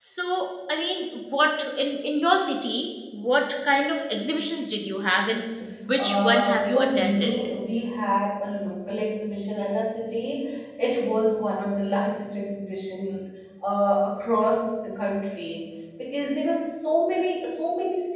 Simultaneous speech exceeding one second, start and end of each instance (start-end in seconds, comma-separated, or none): 6.0-7.3